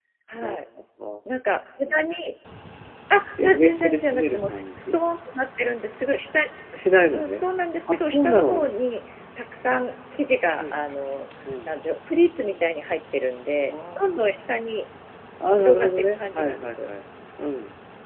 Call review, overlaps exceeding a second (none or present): present